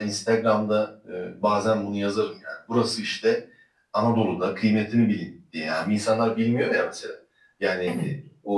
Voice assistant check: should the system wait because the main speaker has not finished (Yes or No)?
Yes